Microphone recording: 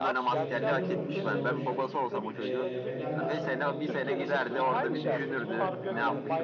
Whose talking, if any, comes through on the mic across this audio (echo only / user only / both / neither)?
both